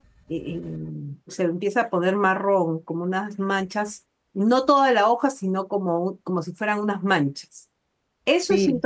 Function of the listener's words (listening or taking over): taking over